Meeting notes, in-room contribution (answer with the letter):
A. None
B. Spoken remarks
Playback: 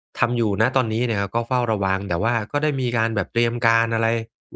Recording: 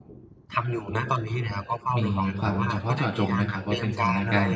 B